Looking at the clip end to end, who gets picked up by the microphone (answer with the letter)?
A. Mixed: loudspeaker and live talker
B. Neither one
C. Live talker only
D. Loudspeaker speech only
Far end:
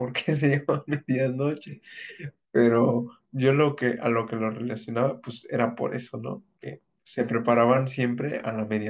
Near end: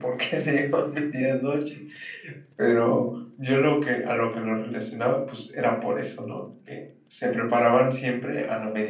D